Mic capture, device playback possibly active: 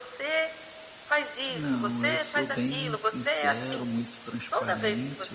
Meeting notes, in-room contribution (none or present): present